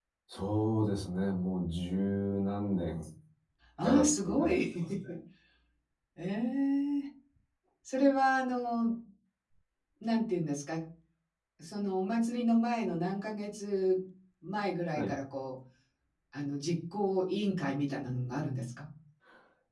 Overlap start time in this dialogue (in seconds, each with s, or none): 3.8 s